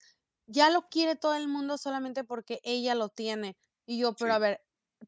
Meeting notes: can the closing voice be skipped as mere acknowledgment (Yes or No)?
Yes